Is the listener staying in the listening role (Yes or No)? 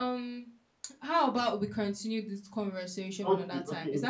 No